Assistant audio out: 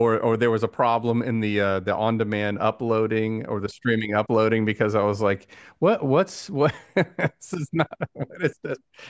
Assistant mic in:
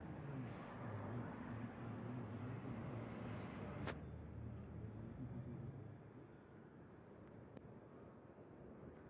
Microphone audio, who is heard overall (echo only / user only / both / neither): neither